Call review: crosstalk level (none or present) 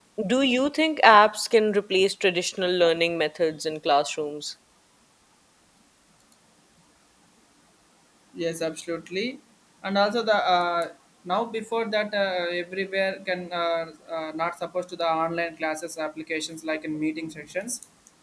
none